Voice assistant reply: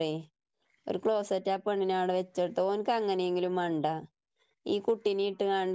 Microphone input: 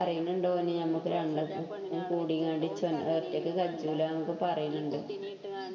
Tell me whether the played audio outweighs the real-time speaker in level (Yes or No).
No